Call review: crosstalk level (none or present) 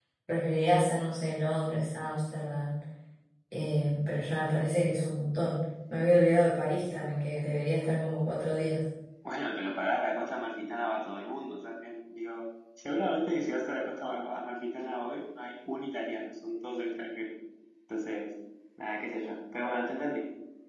none